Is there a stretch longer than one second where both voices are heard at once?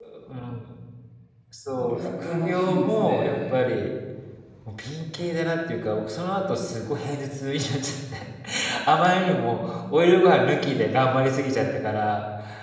Yes, from 1.8 s

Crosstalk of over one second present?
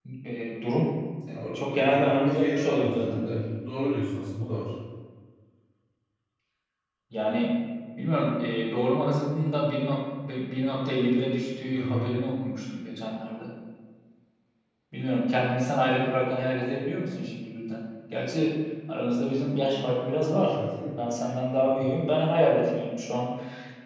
Yes, from 1.6 s

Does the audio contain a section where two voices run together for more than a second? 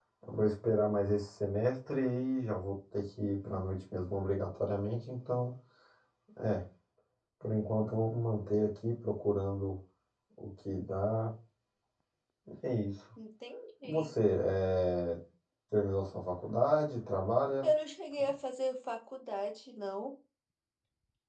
No

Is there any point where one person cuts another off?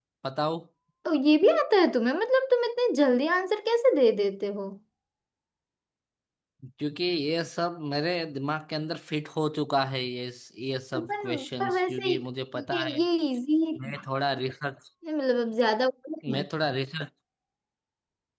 Yes, from 10.9 s

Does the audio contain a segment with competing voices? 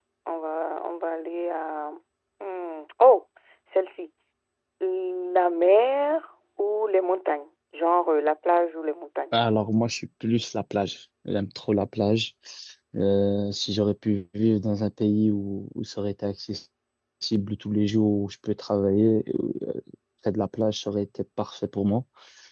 No

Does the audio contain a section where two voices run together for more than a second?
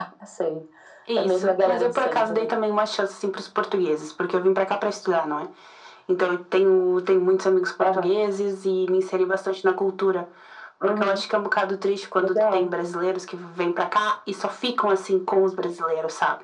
Yes, from 1.2 s

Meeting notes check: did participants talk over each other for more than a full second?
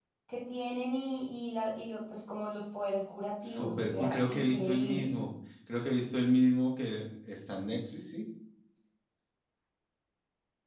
Yes, from 3.4 s

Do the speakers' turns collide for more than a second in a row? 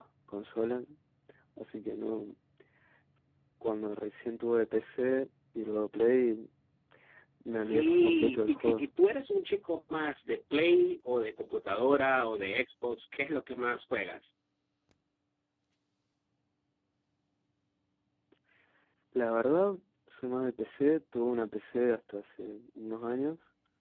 Yes, from 7.5 s

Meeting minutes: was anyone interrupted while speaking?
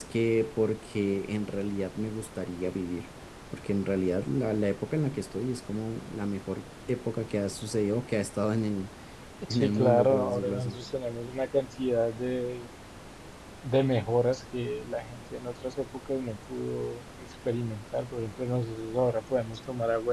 Yes, from 9.5 s

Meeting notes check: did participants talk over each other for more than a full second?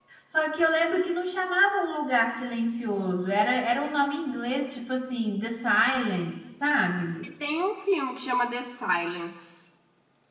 No

